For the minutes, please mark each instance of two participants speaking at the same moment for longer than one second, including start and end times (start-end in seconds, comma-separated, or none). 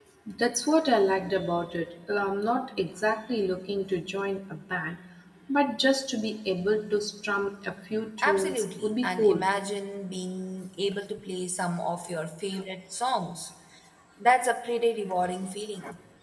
8.2-9.4